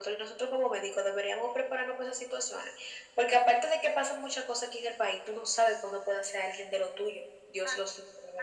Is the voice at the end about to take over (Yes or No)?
Yes